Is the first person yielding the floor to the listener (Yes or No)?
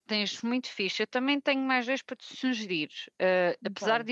No